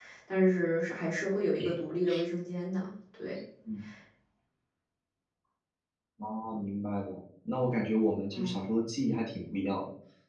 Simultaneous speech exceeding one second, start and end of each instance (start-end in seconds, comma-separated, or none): none